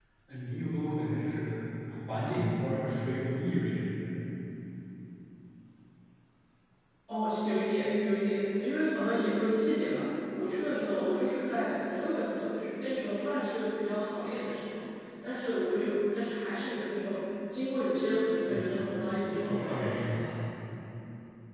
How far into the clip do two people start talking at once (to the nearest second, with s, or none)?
18 s